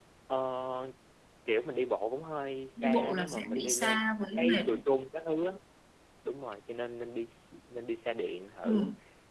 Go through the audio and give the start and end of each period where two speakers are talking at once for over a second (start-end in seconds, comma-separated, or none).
2.8-4.0